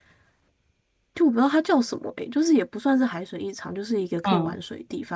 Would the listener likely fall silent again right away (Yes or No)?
Yes